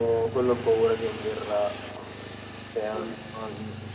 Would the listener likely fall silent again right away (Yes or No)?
Yes